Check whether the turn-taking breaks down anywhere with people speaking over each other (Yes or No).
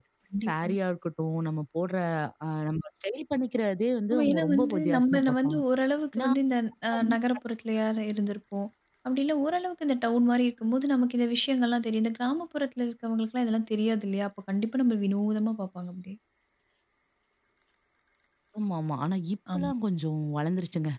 Yes